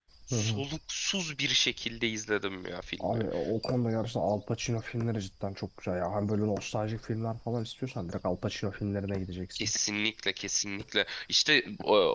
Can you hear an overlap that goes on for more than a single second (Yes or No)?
No